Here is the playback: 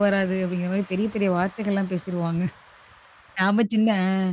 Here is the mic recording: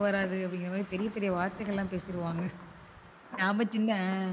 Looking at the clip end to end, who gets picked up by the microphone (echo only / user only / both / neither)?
echo only